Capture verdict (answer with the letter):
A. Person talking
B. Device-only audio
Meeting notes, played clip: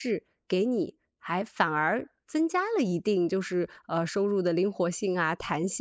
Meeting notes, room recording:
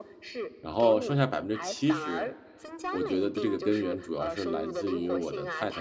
A